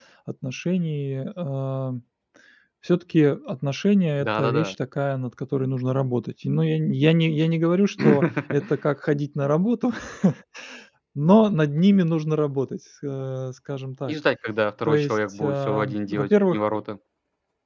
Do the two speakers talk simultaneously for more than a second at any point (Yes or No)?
Yes